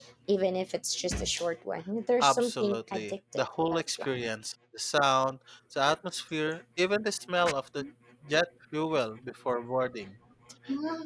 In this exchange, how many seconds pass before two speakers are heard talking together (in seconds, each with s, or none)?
2.2 s